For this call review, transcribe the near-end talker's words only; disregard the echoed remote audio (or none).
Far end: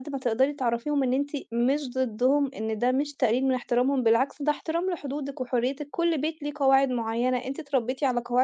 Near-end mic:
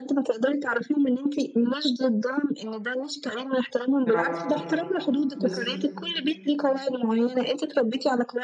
برافو عليكِ، بالضبط.